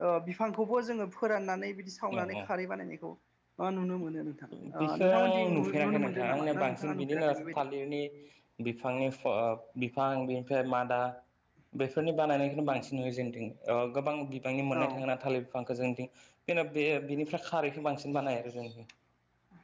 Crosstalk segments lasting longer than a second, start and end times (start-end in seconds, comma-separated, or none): 4.8-7.6